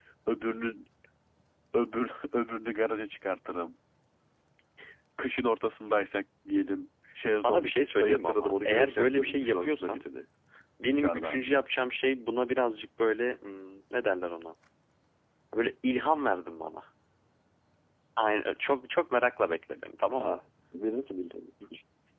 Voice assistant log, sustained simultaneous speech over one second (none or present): present